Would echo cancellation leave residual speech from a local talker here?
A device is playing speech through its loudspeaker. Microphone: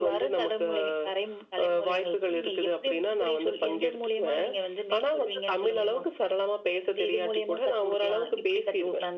No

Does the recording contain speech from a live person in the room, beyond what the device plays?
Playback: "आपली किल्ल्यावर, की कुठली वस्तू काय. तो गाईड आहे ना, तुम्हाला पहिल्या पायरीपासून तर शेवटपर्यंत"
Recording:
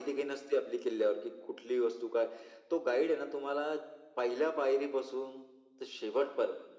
No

